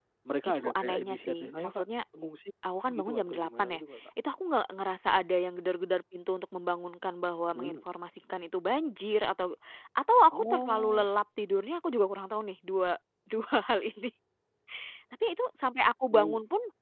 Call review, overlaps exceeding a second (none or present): present